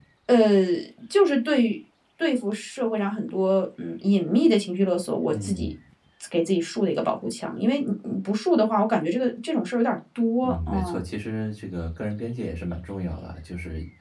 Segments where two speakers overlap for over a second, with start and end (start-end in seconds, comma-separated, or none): none